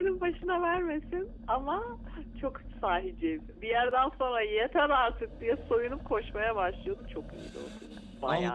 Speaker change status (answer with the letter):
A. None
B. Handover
B